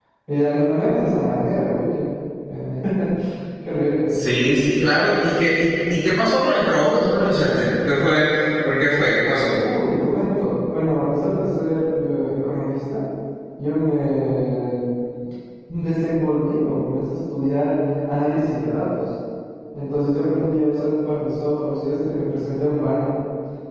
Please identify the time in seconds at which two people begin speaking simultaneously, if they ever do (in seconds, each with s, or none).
none